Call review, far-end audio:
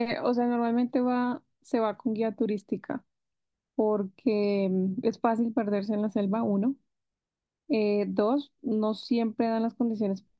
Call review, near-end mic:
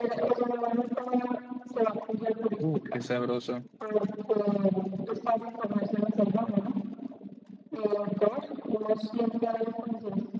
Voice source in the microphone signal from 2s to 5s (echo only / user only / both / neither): both